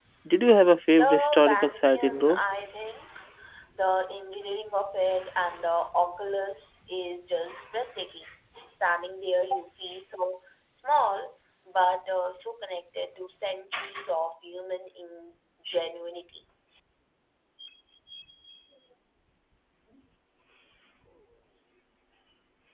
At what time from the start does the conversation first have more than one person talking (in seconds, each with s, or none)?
0.9 s